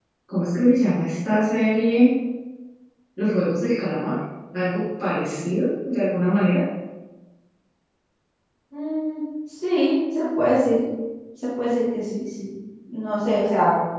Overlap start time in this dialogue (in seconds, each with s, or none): none